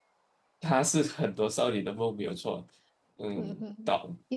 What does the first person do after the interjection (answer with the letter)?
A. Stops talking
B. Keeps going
A